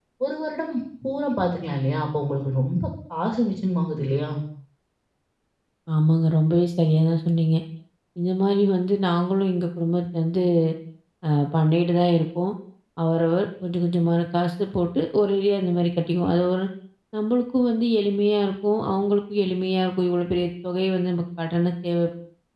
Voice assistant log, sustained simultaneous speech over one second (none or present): none